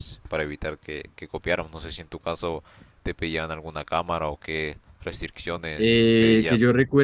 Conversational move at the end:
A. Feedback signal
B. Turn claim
B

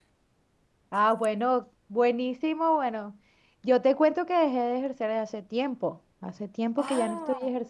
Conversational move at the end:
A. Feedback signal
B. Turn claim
A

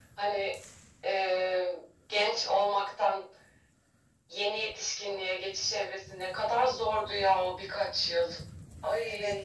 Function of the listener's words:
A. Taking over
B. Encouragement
A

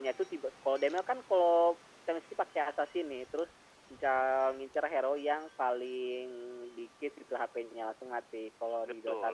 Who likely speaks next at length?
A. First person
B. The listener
B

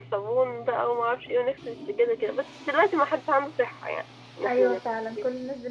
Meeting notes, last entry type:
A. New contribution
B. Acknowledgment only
A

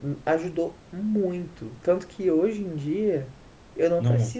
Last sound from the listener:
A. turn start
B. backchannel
B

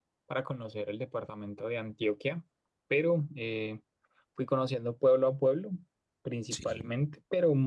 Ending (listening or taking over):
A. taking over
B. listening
B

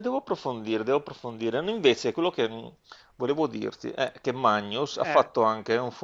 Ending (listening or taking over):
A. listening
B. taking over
A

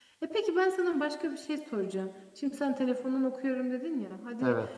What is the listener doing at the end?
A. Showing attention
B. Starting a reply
A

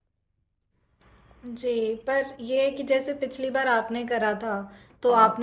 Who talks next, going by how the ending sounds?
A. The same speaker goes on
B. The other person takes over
A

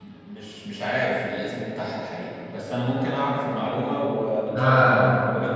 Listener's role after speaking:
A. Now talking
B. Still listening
A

